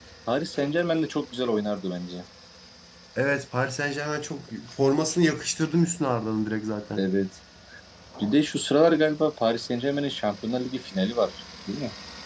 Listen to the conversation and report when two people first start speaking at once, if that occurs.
none

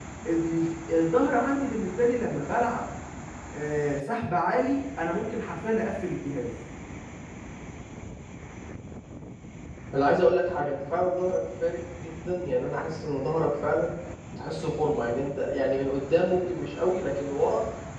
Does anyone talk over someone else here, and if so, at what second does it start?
none

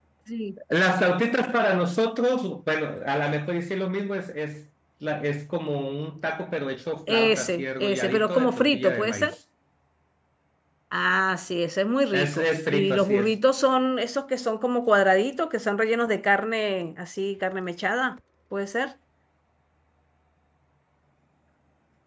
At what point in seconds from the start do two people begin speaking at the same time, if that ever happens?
7 s

